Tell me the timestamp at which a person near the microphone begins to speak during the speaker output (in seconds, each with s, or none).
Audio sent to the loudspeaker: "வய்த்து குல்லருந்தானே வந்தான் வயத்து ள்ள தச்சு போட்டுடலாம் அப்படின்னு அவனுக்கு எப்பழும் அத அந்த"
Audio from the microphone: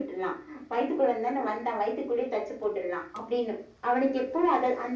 none